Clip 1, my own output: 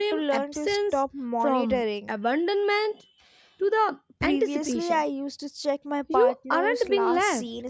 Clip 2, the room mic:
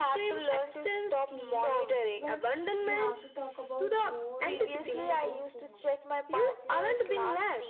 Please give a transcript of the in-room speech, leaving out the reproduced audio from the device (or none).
Okay, but we have to talk about more like more about phones